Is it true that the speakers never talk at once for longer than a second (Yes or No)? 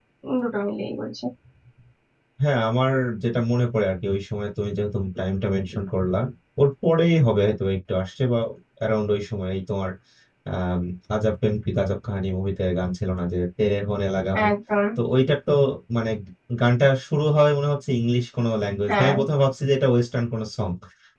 Yes